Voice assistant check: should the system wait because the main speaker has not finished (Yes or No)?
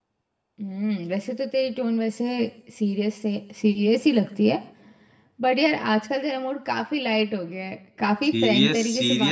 No